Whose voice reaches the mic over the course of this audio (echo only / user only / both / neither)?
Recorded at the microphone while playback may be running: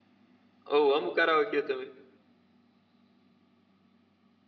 user only